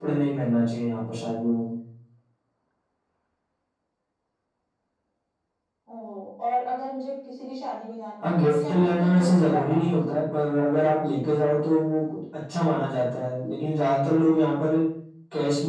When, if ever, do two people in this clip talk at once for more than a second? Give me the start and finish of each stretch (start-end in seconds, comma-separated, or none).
8.2-10.2